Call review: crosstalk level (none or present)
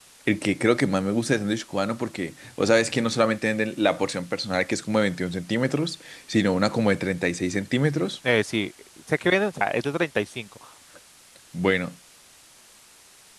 none